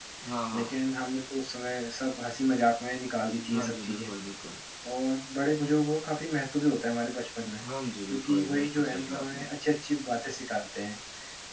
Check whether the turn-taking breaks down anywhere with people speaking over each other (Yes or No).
Yes